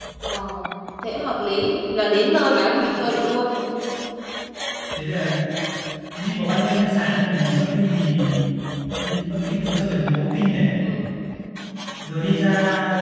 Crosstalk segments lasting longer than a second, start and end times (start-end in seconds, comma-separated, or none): none